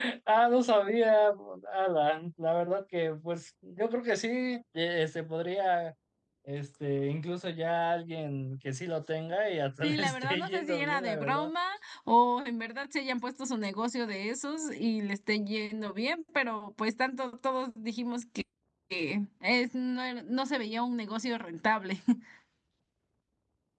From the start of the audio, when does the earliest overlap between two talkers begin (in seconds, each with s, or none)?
9.8 s